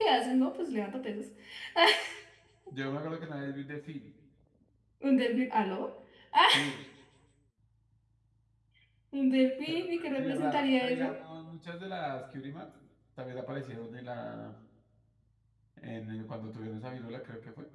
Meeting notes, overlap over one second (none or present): present